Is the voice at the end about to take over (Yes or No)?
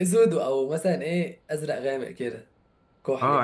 Yes